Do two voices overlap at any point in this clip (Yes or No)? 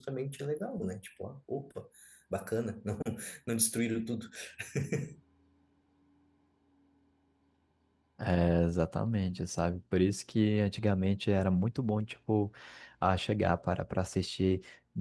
No